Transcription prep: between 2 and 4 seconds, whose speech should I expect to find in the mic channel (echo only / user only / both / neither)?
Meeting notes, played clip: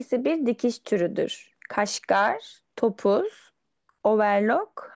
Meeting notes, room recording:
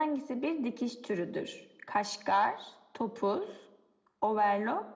echo only